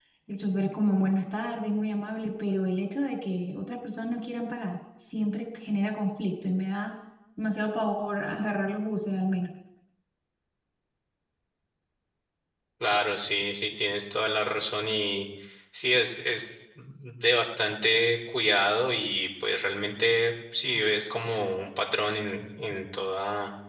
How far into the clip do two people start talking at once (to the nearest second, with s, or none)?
none